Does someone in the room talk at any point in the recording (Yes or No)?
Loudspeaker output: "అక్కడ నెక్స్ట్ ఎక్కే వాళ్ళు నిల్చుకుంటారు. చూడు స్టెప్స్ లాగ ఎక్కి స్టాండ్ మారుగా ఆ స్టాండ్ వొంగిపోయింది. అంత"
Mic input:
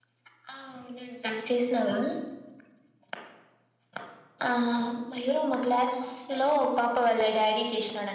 Yes